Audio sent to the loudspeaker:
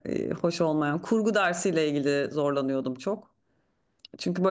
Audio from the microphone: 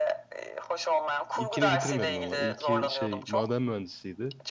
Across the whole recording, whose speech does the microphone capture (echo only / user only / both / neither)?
both